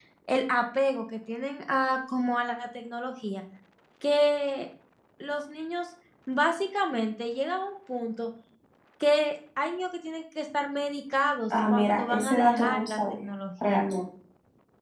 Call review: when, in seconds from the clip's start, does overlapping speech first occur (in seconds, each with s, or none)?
11.5 s